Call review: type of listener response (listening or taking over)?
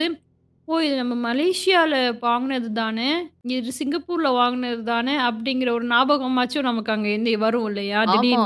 taking over